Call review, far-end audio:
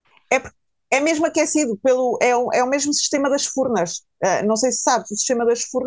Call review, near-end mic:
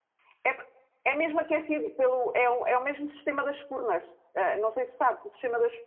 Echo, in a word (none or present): present